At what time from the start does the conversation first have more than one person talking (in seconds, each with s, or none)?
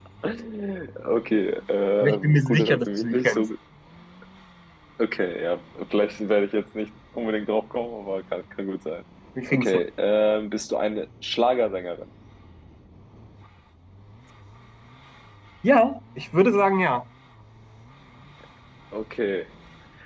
2.0 s